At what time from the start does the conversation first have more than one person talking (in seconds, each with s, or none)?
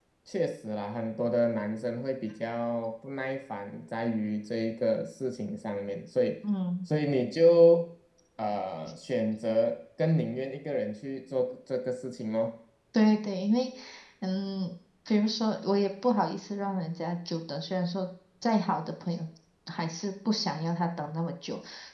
none